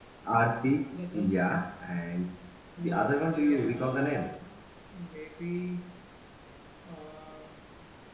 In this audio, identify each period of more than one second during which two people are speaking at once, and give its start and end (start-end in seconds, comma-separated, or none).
2.8-4.3